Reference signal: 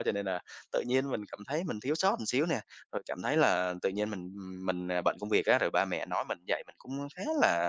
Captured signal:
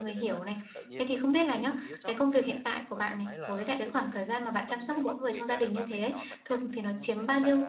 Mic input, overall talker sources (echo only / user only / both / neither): both